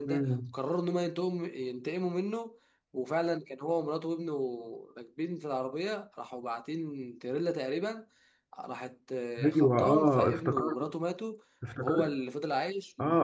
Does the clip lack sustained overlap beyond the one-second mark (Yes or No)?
No